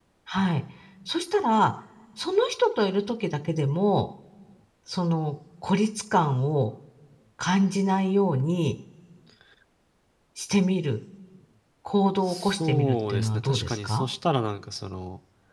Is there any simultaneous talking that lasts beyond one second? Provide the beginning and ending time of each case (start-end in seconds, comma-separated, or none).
12.2-14.0